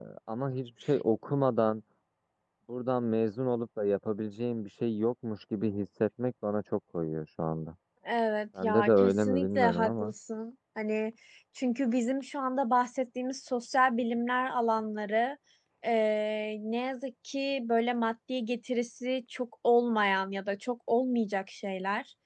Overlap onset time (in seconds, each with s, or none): 8.6 s